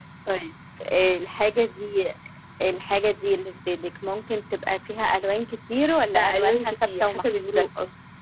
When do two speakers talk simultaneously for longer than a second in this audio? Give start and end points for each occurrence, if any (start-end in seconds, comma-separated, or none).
6.1-7.7